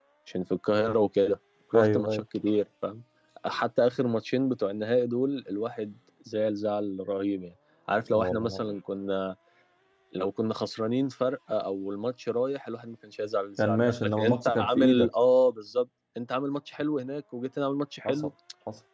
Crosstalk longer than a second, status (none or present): present